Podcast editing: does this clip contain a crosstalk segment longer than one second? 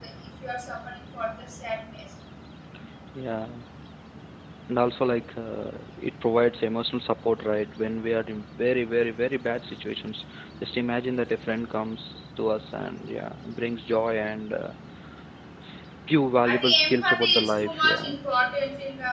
Yes, from 16.4 s

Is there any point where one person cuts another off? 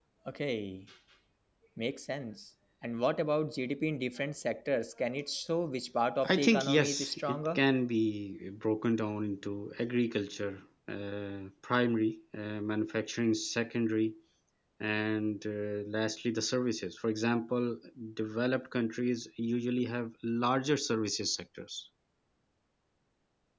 Yes, from 6.2 s

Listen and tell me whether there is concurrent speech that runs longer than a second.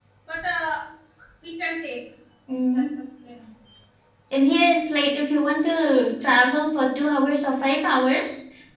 No

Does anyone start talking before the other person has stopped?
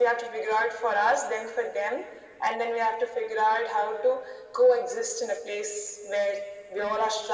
No

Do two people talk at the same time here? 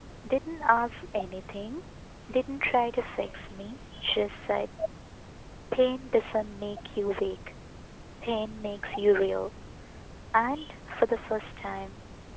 No

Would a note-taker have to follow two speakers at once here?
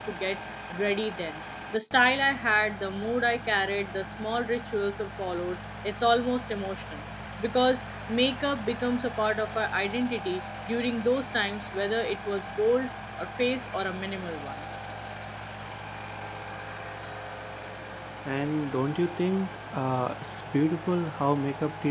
No

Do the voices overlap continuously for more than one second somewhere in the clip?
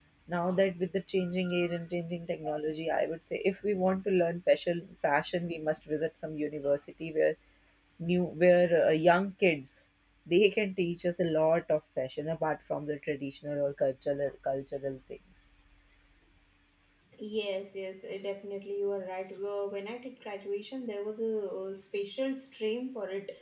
No

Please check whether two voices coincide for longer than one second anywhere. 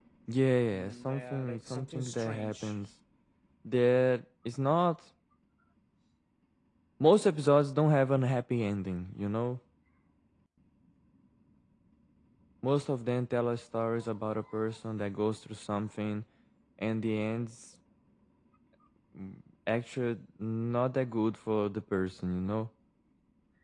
Yes, from 0.7 s

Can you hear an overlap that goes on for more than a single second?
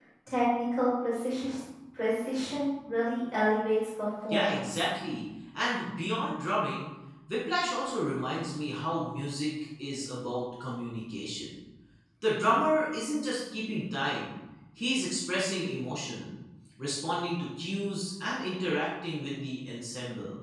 No

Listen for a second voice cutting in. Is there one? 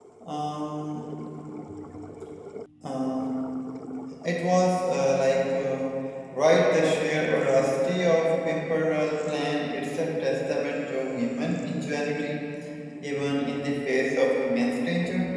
No

